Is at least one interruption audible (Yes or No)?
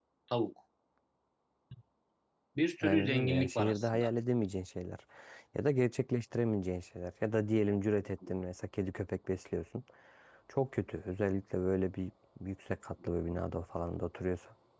Yes